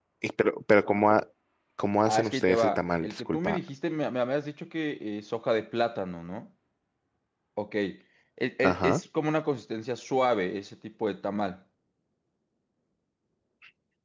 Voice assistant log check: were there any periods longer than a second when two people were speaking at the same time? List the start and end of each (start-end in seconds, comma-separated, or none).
2.1-3.6